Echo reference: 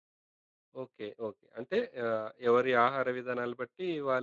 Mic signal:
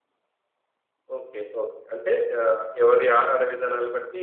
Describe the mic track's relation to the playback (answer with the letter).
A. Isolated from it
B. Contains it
B